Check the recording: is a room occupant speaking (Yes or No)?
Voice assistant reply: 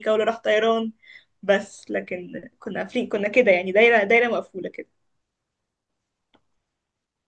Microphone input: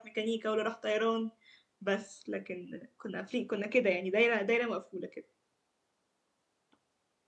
No